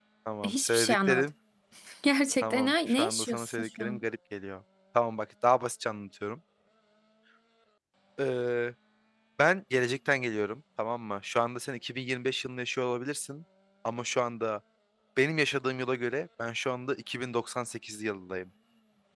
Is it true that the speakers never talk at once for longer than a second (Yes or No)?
No